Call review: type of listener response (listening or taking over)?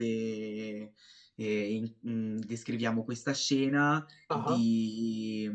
listening